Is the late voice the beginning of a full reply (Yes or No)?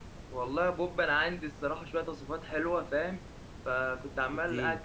No